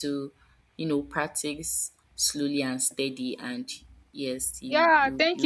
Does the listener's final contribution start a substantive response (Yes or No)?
Yes